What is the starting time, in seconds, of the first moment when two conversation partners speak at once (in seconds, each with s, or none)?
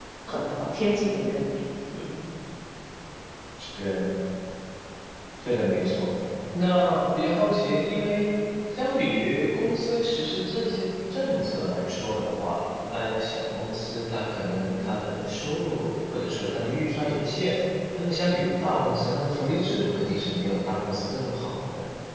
none